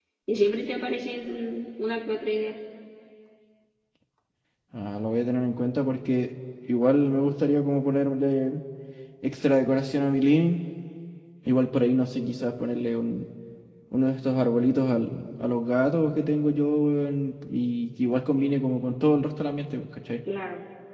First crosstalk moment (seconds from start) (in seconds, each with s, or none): none